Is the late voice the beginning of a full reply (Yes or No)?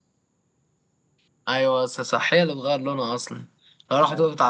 No